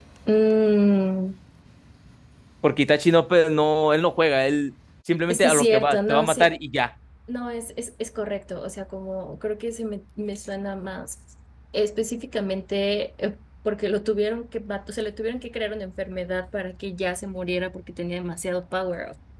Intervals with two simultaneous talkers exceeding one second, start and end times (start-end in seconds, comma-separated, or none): 5.3-6.6